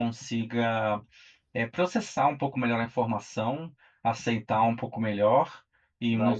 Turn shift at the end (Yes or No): No